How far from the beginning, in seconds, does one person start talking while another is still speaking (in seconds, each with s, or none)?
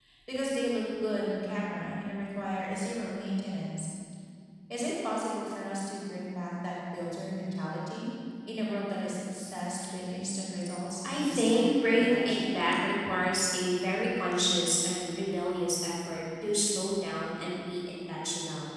11.0 s